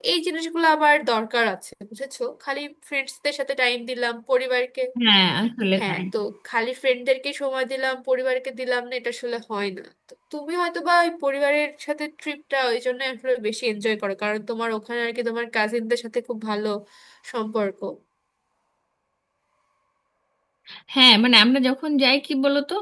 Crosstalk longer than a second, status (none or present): none